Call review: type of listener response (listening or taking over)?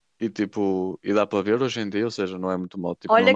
taking over